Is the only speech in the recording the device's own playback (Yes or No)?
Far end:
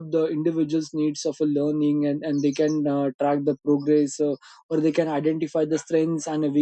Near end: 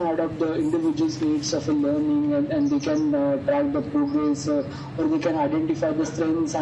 Yes